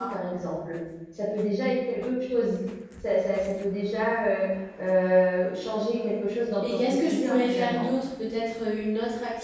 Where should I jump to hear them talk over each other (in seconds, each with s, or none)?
6.6 s